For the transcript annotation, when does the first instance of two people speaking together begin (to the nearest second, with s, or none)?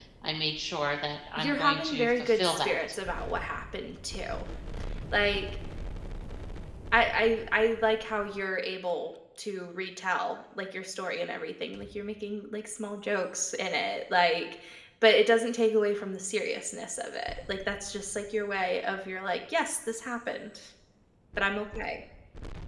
1 s